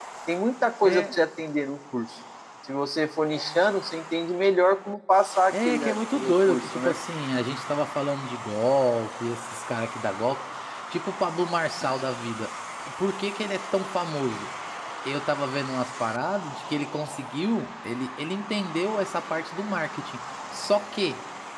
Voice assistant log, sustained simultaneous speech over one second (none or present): present